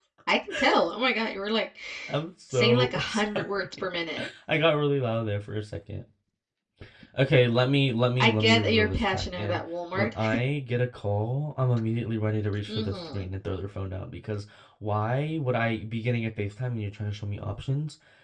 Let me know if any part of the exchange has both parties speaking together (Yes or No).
Yes